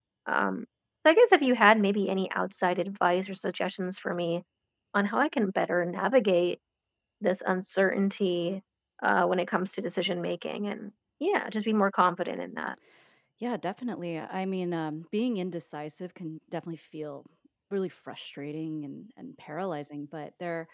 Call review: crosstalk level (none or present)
none